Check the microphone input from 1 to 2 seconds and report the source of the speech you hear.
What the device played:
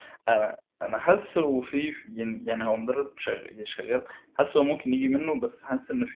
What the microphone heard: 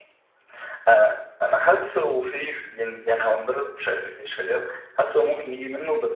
echo only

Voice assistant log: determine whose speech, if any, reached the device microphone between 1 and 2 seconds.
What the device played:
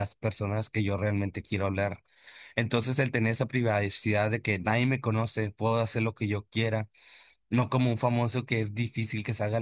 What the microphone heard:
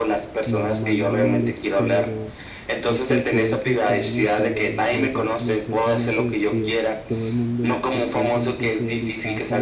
both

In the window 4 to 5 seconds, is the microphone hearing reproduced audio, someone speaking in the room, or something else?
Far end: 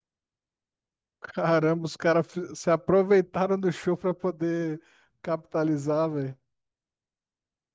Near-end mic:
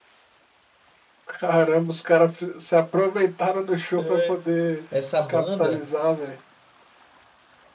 both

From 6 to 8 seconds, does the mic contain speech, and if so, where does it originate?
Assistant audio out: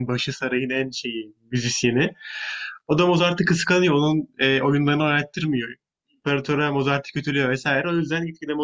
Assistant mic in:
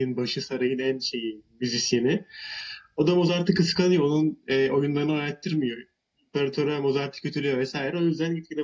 echo only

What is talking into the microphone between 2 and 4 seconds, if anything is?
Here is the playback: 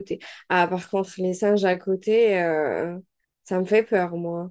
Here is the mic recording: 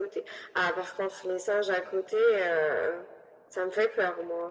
echo only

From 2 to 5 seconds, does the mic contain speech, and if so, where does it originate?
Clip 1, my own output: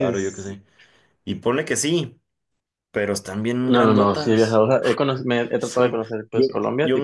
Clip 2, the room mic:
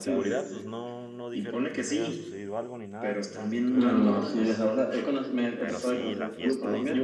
both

